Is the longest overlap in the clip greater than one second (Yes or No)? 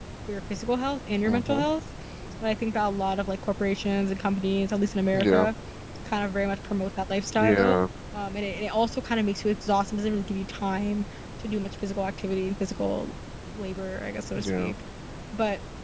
No